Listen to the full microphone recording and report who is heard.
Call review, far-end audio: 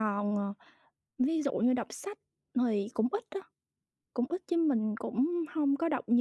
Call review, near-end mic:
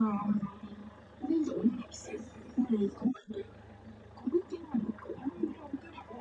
echo only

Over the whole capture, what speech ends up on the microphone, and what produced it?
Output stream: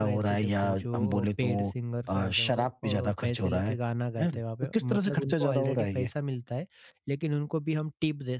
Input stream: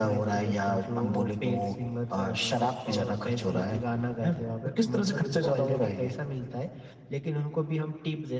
echo only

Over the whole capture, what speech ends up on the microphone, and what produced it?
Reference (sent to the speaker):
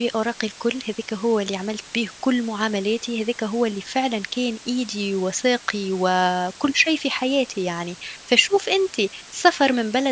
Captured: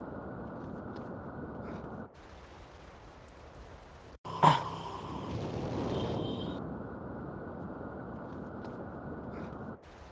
neither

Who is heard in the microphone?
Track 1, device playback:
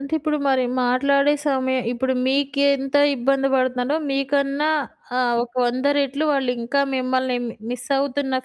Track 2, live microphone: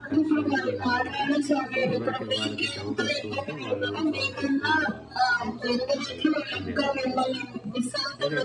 both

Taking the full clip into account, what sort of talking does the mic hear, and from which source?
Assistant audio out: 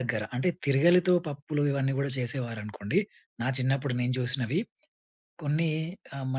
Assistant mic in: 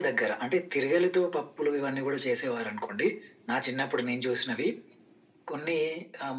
echo only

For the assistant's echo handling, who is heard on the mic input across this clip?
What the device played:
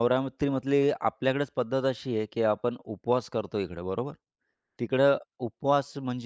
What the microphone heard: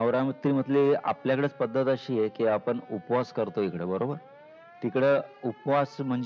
echo only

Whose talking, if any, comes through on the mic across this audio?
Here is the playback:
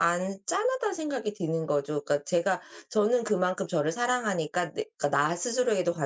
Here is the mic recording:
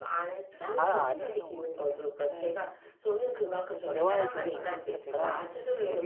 both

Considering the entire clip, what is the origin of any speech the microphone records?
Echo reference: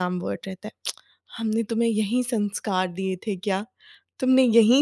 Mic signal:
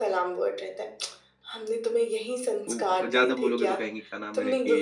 both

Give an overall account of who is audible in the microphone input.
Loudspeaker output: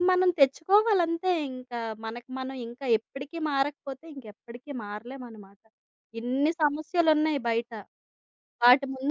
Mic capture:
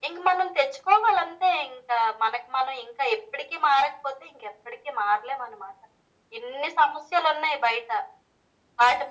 echo only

